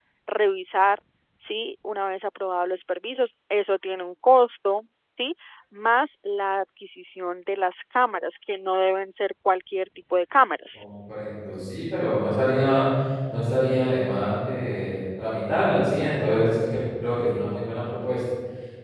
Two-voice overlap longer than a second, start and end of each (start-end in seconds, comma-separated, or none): none